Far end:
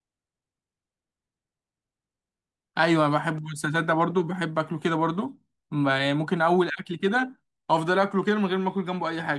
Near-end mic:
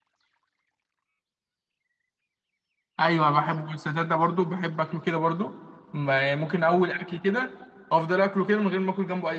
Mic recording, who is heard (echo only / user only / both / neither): echo only